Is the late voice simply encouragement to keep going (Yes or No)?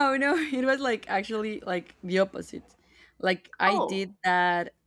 Yes